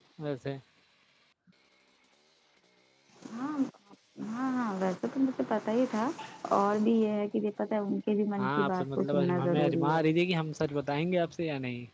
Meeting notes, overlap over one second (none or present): present